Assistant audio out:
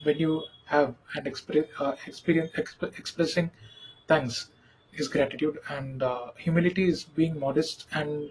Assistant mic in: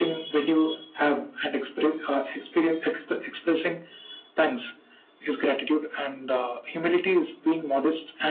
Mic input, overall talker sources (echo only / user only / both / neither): echo only